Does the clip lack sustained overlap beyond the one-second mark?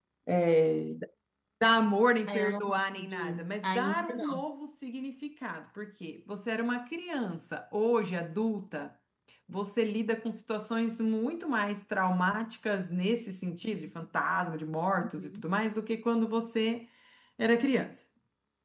No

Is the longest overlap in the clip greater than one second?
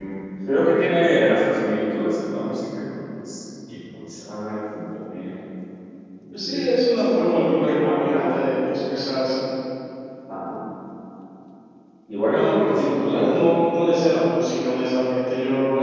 Yes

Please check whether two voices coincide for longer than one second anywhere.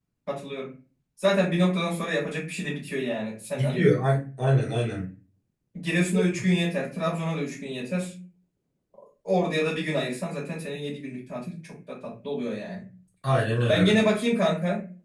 No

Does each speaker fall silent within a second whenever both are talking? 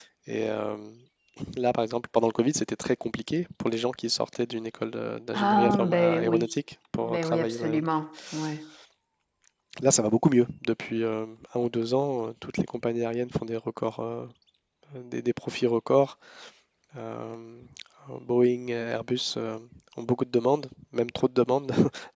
No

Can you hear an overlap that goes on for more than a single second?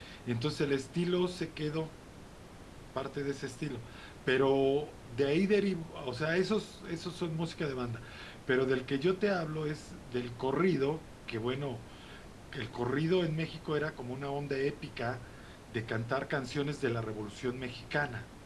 No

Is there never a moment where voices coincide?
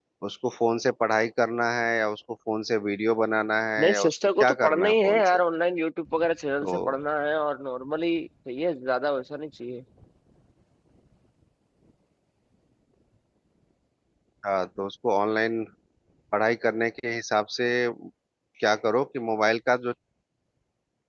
No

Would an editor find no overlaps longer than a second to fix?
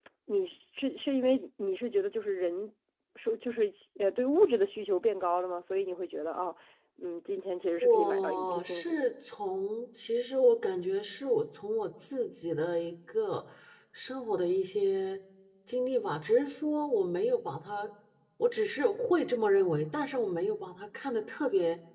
No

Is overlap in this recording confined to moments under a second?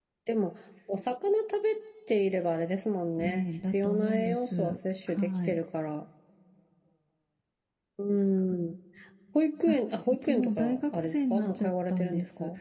No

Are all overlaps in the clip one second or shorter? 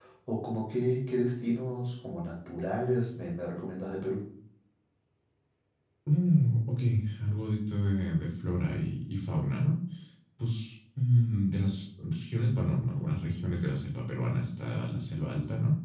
Yes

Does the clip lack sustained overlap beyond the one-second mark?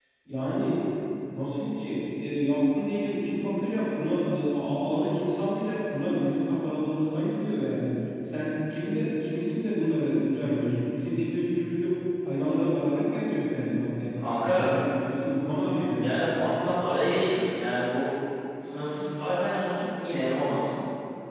Yes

